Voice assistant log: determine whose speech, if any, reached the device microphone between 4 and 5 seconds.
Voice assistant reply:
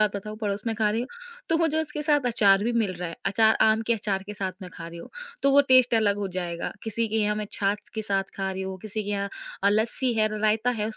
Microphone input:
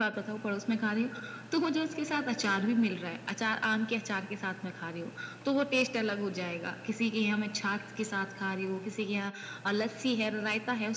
echo only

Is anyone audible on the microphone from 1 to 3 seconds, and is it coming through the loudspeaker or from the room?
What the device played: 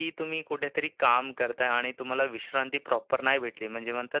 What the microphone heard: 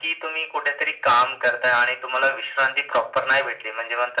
echo only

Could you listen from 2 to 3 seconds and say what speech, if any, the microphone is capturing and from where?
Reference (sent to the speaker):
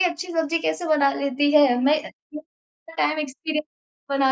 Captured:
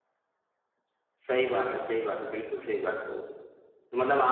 user only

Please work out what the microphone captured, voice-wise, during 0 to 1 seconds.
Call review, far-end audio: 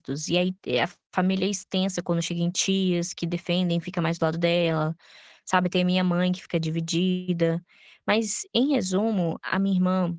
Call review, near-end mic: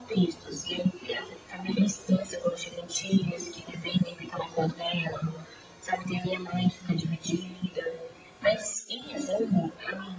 echo only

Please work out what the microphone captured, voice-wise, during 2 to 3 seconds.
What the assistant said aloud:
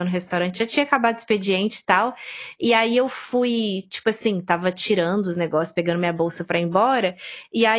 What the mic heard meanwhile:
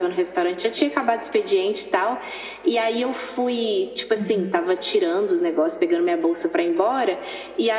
echo only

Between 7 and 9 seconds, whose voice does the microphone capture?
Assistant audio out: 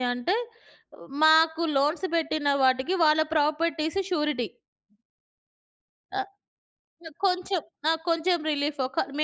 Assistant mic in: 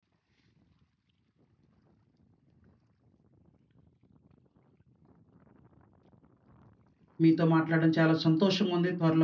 user only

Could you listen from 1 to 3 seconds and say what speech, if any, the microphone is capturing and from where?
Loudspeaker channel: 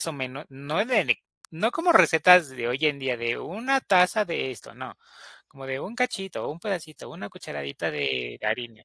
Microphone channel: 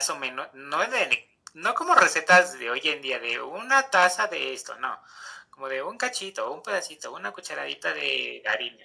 echo only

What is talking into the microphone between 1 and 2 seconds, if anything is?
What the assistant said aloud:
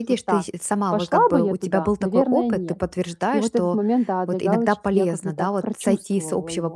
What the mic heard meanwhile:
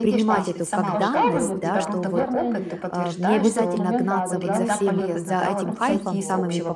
both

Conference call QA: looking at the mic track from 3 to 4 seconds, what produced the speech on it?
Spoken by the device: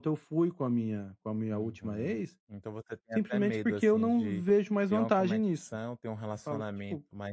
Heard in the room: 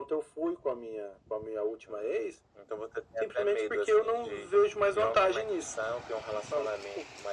echo only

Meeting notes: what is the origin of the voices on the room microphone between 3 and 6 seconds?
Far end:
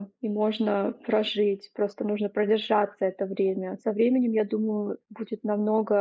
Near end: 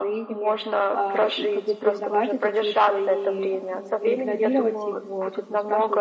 both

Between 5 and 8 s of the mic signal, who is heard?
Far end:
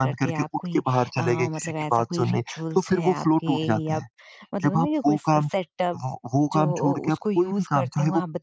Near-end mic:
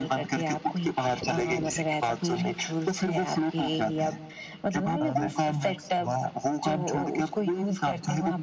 both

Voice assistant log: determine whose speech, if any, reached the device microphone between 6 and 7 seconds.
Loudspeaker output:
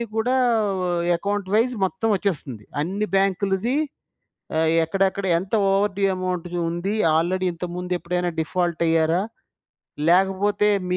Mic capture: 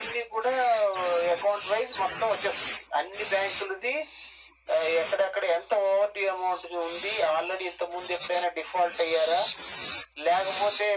echo only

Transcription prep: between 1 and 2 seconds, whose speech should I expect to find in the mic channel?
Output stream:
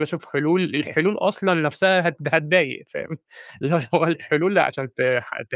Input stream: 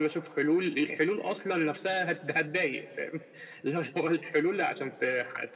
echo only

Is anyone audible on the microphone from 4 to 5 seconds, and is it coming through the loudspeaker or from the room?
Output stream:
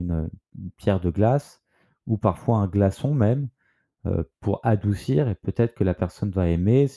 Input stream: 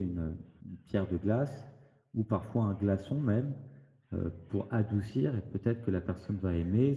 echo only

